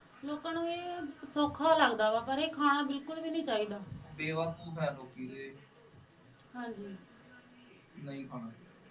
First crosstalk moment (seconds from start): none

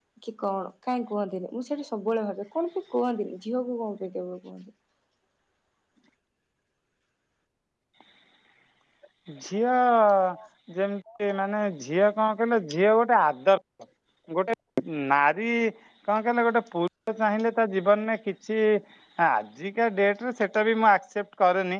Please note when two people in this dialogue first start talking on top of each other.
none

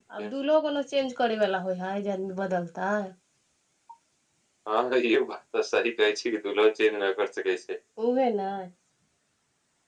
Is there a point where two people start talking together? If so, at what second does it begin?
none

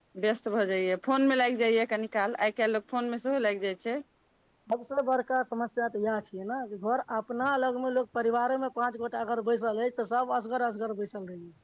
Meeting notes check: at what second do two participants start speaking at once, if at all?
none

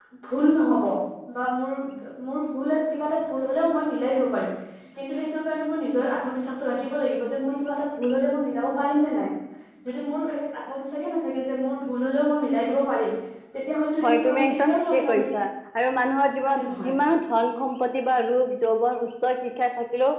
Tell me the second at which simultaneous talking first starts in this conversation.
14.0 s

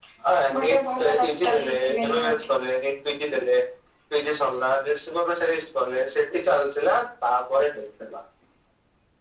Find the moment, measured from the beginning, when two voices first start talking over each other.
0.6 s

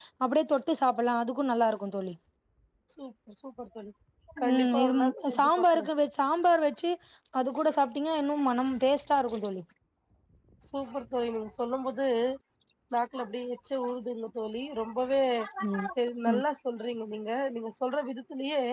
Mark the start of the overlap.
4.5 s

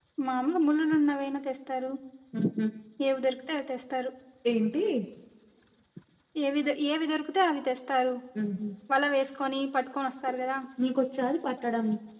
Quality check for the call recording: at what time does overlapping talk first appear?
none

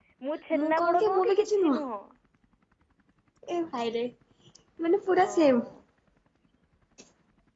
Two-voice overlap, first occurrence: 0.6 s

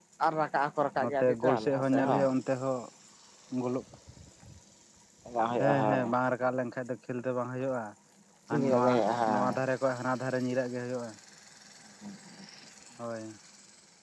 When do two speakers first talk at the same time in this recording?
1.0 s

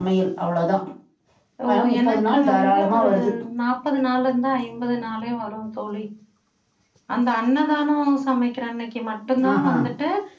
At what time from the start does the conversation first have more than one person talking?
1.7 s

